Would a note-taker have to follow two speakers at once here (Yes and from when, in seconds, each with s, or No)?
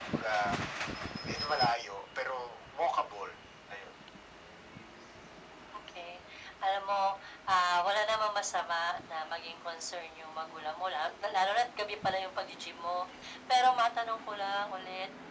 No